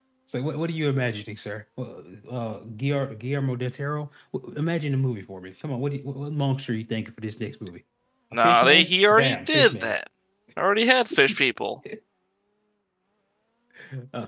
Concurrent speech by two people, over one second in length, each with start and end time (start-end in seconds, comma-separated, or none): 8.4-9.9